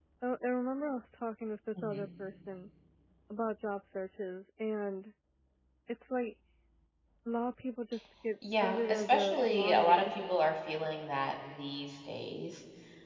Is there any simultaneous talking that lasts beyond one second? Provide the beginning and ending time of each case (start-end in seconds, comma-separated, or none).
8.6-10.1